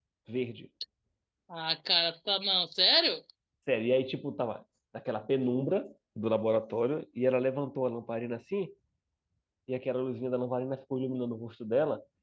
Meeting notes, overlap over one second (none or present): none